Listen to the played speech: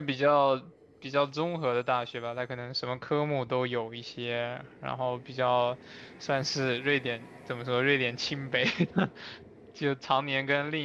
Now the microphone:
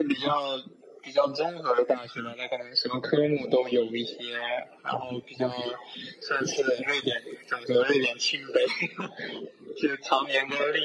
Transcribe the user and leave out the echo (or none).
none